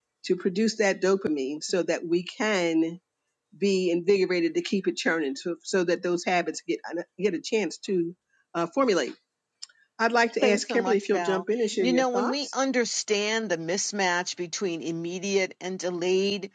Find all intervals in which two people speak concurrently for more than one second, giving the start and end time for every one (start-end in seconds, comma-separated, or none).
10.4-12.5